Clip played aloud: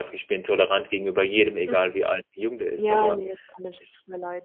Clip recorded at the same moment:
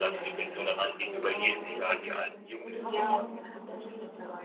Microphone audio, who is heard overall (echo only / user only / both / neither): both